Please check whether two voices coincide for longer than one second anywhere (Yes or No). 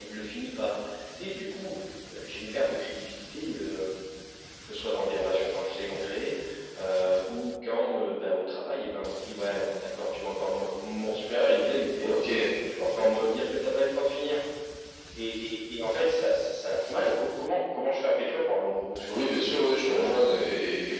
Yes